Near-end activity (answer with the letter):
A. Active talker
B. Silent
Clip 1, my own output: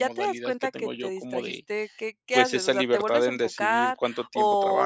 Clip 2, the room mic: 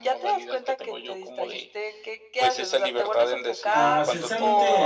A